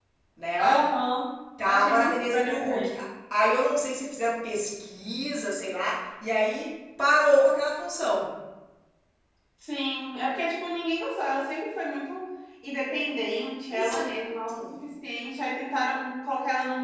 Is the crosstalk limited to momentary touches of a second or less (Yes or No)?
No